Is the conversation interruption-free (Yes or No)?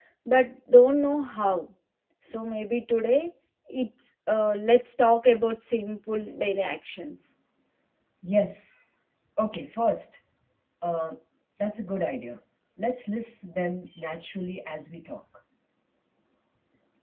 Yes